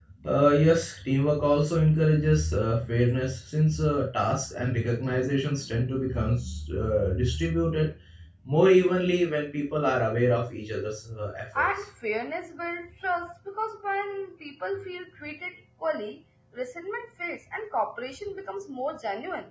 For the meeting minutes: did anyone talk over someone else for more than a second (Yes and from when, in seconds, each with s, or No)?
No